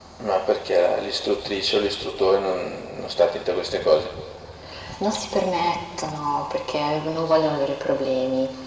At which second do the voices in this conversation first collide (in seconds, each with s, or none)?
none